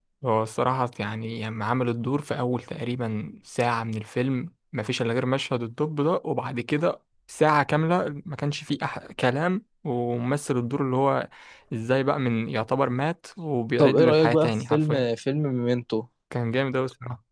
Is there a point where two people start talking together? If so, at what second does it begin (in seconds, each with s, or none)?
13.8 s